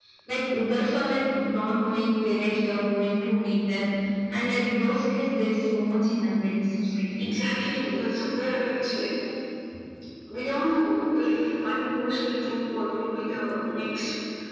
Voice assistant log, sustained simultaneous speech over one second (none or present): none